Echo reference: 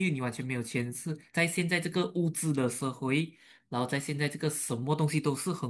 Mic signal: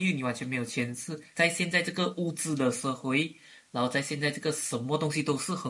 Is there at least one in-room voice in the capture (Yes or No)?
No